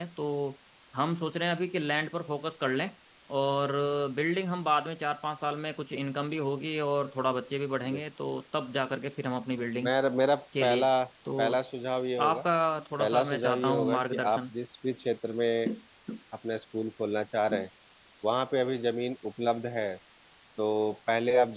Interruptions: present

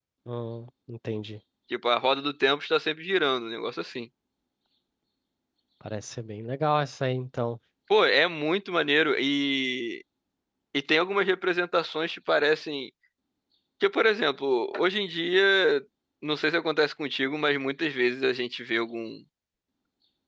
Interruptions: none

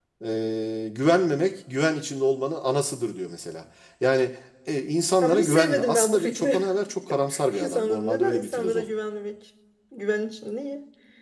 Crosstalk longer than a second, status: present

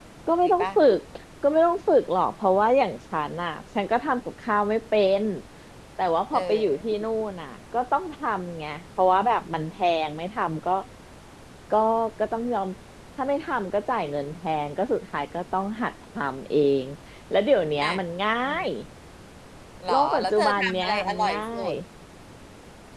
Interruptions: present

